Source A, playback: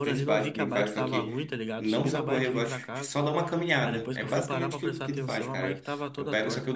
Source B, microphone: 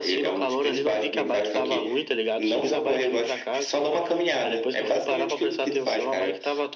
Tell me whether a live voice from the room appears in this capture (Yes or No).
No